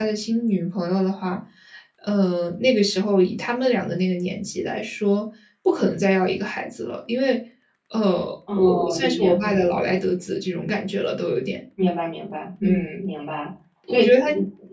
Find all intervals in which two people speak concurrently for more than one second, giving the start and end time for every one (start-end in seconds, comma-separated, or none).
8.6-9.8